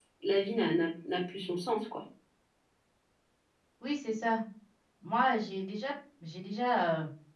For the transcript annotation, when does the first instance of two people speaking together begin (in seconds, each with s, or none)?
none